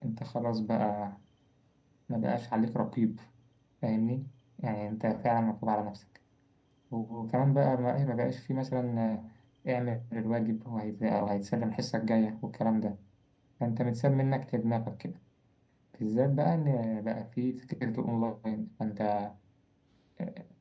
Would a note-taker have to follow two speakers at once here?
No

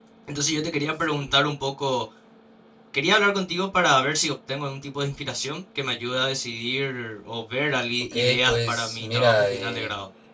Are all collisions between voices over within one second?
No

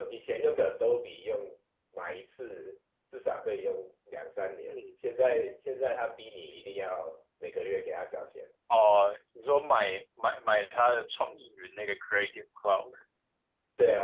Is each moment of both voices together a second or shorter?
Yes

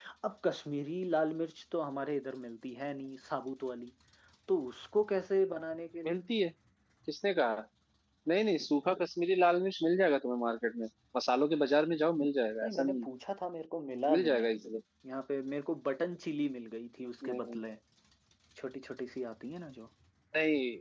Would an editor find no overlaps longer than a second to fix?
Yes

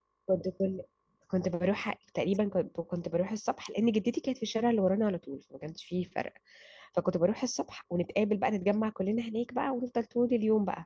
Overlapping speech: No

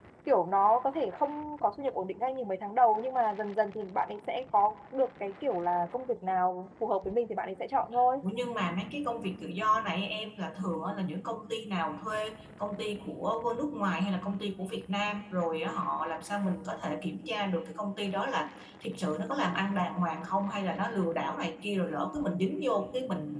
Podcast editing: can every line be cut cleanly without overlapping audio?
Yes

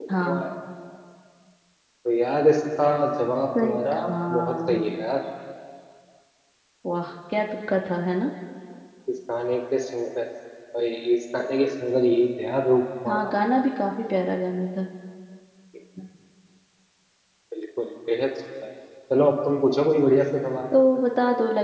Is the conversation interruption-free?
No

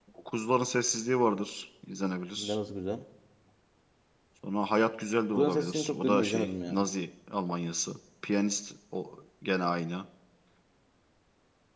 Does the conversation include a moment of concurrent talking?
Yes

